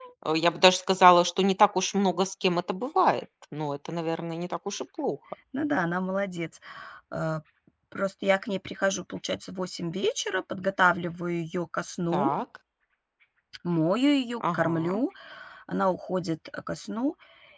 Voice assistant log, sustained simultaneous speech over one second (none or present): none